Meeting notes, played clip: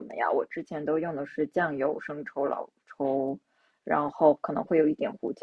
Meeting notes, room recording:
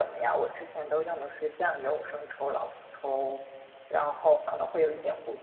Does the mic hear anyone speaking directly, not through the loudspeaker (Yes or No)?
No